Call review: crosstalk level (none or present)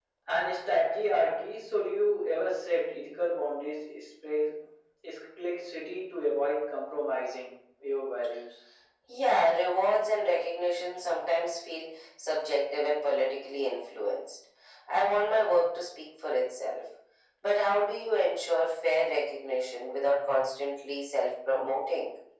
none